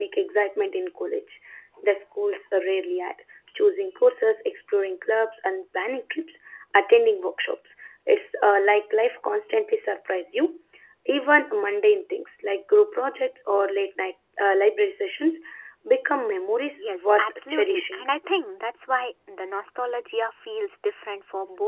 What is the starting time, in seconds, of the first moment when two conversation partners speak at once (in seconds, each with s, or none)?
16.8 s